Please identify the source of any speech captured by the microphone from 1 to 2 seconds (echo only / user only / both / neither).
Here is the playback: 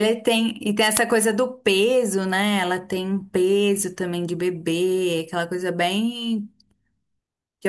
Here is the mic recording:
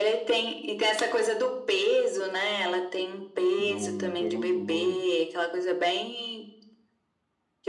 echo only